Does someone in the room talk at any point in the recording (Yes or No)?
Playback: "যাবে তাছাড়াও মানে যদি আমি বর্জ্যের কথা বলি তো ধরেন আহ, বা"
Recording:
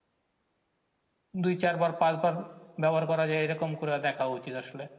Yes